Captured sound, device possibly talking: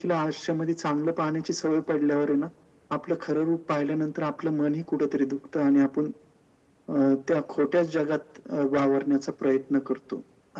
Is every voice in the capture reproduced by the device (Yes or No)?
Yes